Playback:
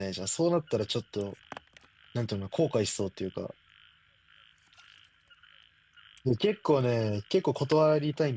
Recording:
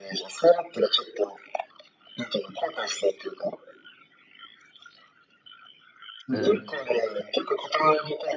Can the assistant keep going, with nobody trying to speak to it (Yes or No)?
No